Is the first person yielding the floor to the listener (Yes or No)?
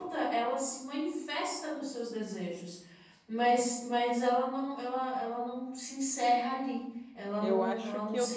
Yes